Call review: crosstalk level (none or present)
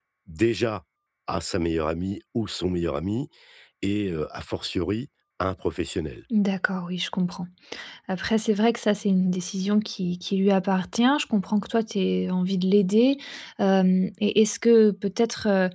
none